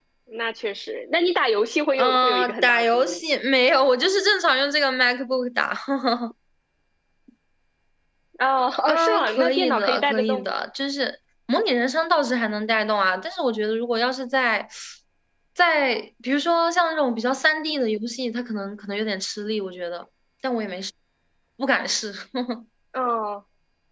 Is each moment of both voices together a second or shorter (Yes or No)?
No